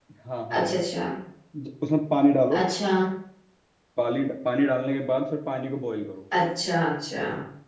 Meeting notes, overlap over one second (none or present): none